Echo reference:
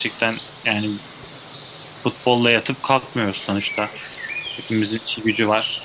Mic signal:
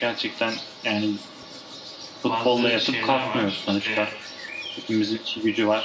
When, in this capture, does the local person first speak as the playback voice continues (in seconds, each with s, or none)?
2.3 s